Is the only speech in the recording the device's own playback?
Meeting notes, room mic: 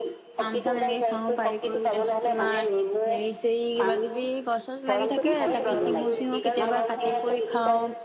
No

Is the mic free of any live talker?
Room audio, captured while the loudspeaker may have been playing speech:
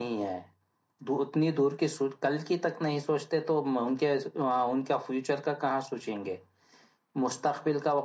No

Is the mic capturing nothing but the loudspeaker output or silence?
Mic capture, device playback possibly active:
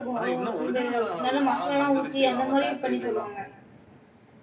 No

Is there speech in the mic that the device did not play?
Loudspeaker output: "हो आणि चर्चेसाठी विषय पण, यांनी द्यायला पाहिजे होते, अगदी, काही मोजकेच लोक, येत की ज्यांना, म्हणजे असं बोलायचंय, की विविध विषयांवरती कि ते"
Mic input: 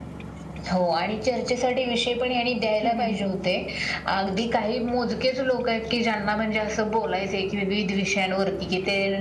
Yes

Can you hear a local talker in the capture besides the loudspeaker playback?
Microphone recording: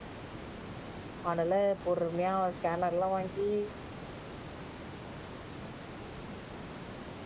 Yes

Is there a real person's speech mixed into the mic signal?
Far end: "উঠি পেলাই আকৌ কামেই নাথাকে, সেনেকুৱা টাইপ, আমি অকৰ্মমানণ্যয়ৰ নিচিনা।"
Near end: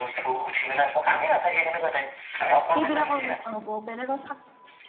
Yes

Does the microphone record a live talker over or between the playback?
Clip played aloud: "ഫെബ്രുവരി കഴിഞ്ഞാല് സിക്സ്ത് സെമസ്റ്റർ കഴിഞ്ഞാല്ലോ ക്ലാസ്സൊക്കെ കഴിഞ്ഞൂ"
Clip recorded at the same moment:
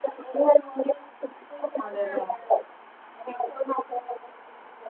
Yes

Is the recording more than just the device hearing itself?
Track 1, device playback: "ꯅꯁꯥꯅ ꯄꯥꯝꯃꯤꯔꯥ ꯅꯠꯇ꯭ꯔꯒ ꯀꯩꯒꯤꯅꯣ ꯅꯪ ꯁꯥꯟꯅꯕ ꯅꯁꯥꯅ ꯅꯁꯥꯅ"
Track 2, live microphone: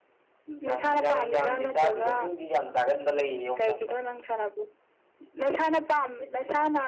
Yes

